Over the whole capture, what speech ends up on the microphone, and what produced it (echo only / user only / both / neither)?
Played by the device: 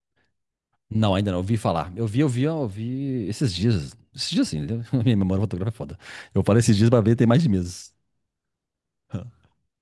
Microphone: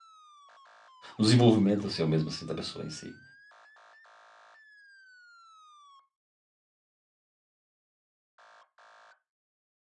user only